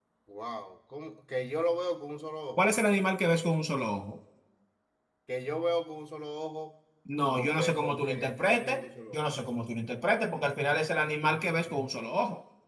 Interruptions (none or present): present